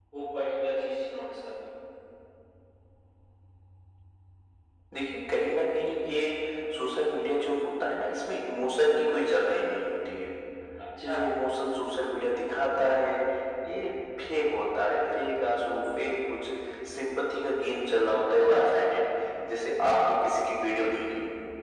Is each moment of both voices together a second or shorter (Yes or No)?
Yes